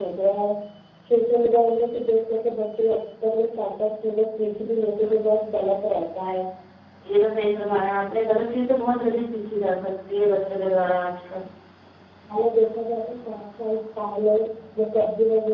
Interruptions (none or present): none